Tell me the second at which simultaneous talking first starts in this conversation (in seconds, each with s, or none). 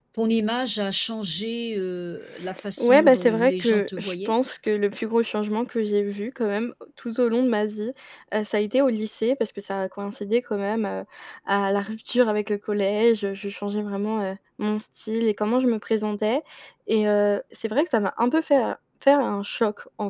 2.8 s